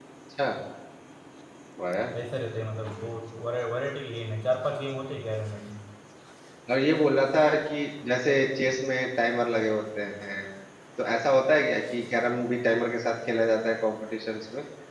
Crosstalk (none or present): none